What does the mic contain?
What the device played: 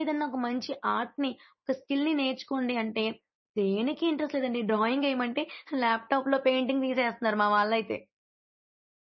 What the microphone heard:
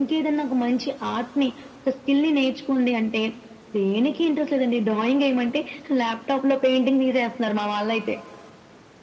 echo only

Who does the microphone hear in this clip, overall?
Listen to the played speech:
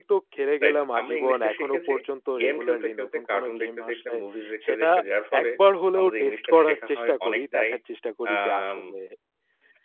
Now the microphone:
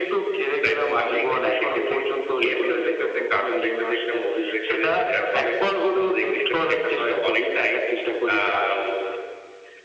echo only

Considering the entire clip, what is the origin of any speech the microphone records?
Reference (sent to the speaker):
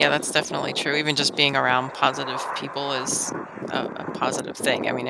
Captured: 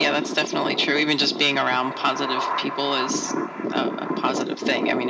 echo only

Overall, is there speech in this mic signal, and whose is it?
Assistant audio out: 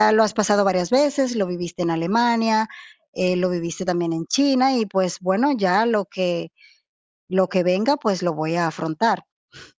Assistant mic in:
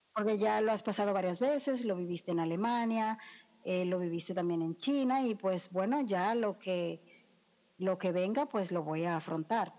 echo only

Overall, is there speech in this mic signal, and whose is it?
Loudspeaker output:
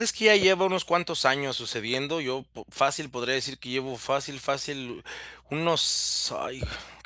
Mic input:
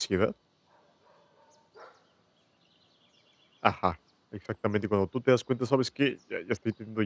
user only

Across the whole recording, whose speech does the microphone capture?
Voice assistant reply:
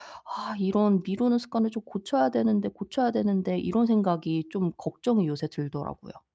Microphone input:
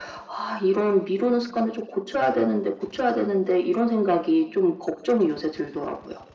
echo only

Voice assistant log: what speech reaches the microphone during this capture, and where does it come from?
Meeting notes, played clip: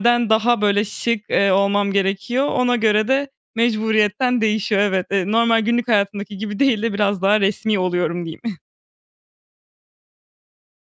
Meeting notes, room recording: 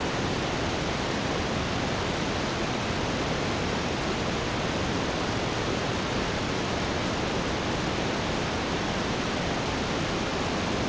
neither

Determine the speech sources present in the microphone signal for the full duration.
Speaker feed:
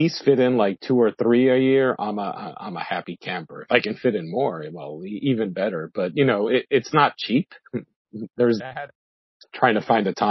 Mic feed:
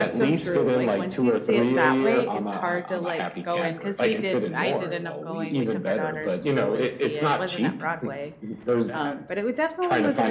both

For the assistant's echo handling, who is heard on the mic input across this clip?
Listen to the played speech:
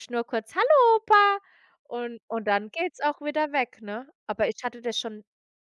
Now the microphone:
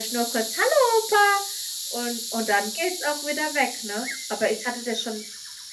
echo only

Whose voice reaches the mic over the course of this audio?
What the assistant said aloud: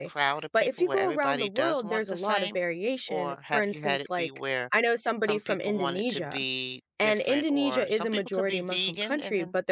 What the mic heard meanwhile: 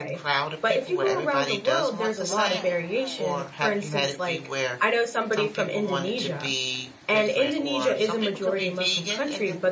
both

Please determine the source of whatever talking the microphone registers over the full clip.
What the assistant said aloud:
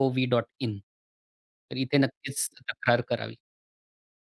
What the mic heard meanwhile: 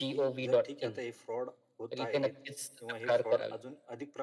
both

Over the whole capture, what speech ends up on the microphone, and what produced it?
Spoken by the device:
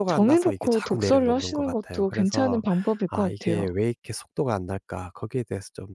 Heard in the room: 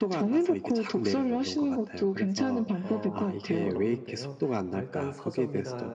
both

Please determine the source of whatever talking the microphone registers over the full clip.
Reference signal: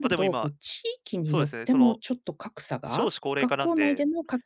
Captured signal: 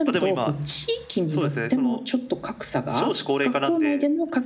echo only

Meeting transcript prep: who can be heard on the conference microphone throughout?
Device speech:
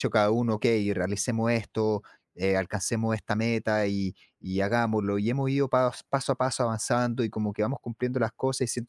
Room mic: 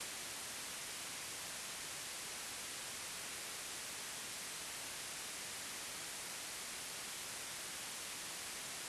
neither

